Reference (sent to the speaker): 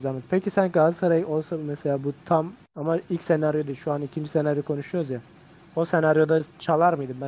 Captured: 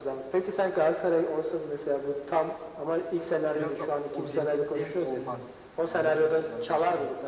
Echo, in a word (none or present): present